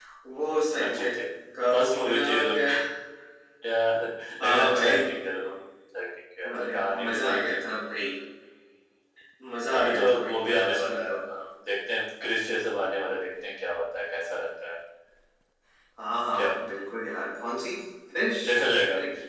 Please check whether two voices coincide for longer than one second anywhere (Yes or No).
Yes